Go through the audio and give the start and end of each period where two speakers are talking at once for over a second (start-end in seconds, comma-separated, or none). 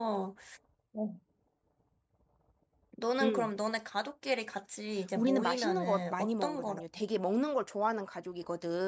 5.2-6.8